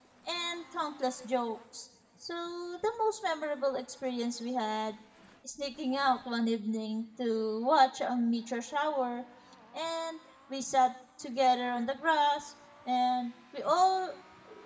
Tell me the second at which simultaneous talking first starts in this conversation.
none

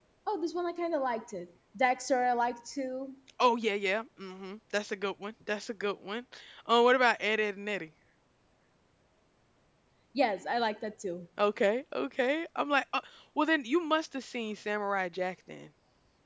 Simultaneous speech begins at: none

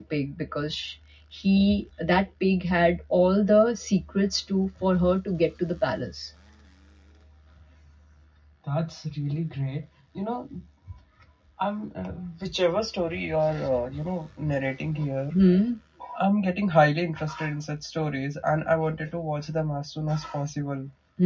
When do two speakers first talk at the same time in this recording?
none

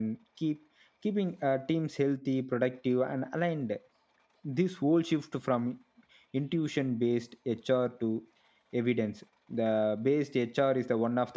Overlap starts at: none

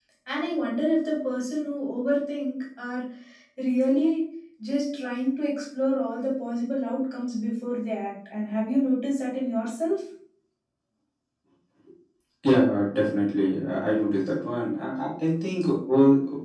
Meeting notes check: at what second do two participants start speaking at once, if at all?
none

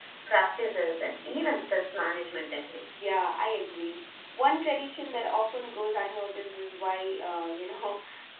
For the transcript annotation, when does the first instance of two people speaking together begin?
none

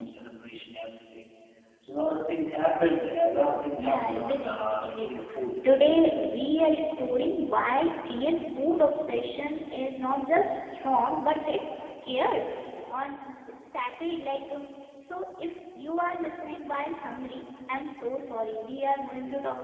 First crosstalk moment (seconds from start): 3.8 s

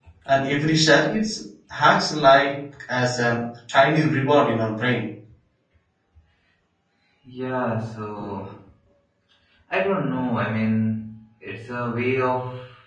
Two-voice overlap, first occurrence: none

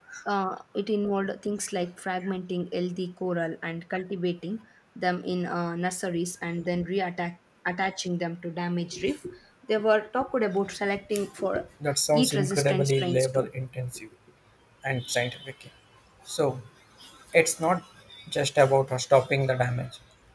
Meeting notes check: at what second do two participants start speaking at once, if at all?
12.1 s

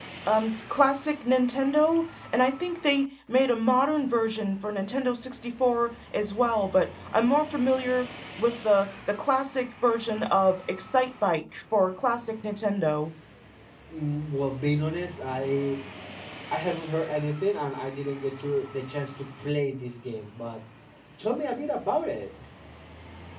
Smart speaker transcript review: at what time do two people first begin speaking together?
none

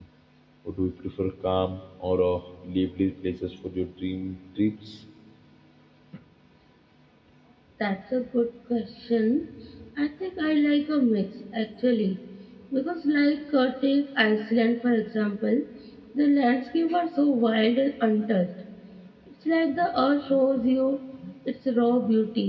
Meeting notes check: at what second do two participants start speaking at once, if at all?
none

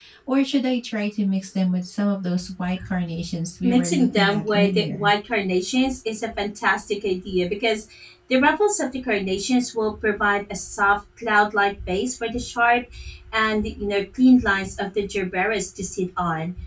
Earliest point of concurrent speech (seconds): 3.6 s

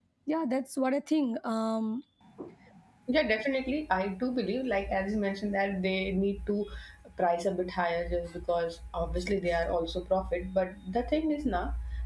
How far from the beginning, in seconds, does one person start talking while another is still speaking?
none

